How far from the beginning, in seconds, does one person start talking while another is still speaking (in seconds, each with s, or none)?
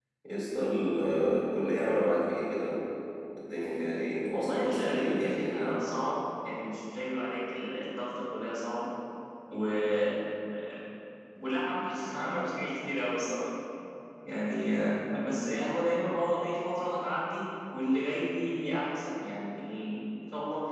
4.3 s